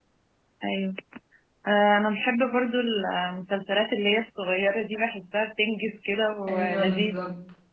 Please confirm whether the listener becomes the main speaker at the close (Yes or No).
Yes